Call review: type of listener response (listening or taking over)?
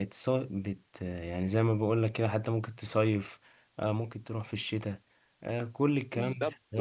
taking over